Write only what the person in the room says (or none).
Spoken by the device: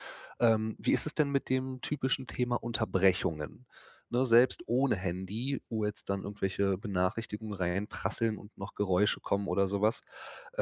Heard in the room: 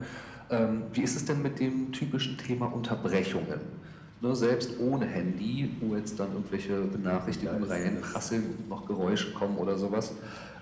Und da ist das